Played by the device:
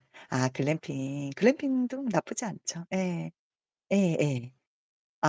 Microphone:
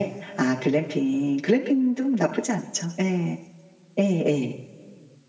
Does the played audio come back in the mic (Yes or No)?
Yes